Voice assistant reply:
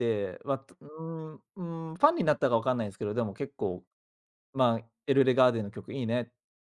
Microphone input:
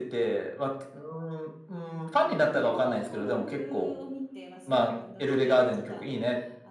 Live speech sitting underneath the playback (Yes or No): Yes